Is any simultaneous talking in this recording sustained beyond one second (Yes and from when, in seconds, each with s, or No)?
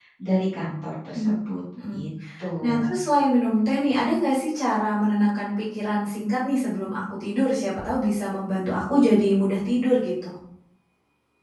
No